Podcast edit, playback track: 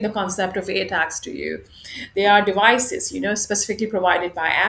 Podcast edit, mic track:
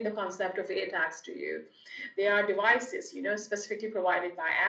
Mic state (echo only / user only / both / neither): echo only